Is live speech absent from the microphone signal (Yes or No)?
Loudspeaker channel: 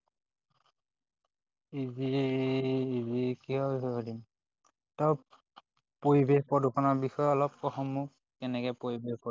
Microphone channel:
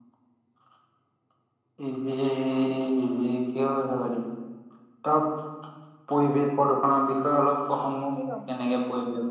No